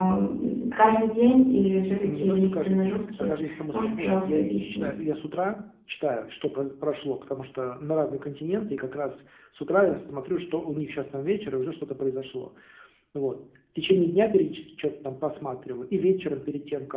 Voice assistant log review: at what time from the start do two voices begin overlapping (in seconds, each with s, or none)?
2.0 s